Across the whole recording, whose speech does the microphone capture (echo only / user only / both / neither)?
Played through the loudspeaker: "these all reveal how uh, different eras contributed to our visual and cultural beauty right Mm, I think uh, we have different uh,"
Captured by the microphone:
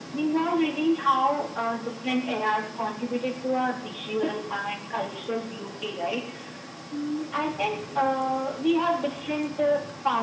echo only